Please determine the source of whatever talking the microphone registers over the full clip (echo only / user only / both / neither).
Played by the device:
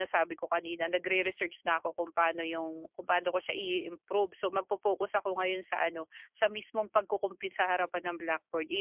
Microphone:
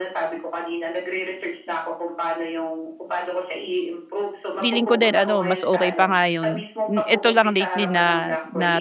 both